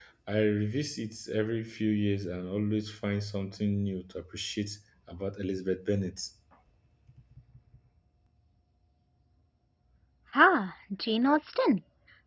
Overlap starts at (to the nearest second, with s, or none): none